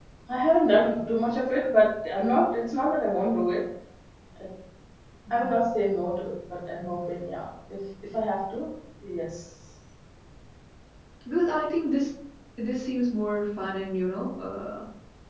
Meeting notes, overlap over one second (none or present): none